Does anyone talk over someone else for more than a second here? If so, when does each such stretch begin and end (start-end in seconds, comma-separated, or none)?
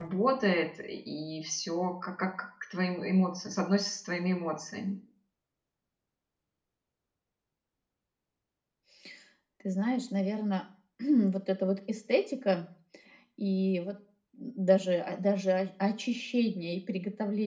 none